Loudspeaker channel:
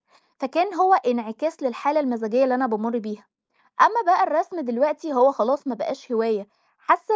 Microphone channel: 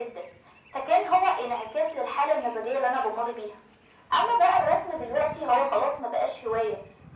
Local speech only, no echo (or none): none